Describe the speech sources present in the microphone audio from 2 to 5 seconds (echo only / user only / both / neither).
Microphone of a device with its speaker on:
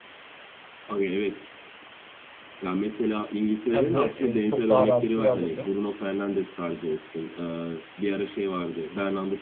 both